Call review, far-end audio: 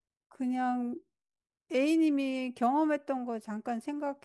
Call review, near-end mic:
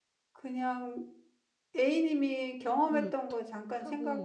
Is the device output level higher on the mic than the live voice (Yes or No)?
Yes